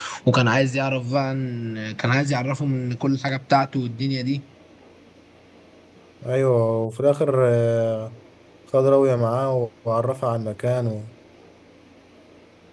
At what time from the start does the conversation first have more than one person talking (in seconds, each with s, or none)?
none